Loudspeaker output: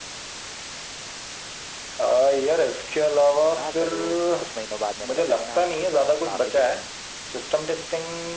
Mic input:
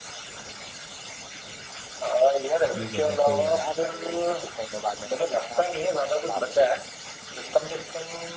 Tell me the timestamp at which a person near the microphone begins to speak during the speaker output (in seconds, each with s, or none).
2.6 s